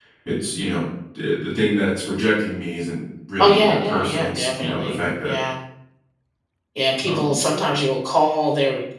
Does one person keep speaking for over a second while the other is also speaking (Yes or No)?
Yes